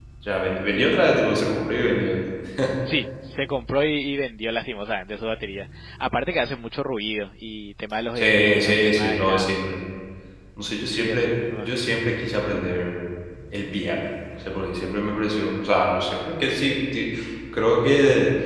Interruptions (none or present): present